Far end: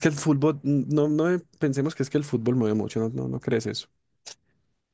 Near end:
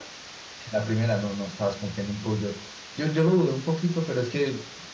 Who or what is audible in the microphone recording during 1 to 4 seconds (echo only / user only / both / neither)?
user only